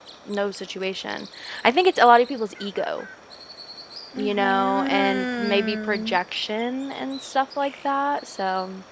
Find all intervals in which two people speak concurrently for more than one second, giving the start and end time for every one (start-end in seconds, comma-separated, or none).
4.2-6.2